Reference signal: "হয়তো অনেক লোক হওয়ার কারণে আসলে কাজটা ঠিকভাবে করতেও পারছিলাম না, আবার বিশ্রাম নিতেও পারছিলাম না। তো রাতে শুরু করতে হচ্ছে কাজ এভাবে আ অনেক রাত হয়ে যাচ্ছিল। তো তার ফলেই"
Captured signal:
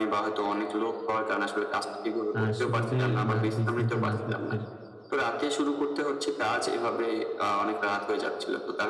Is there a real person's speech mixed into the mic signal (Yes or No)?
Yes